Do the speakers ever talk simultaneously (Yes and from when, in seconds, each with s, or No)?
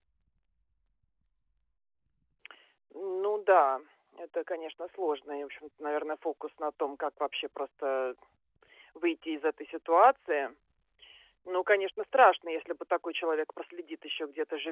No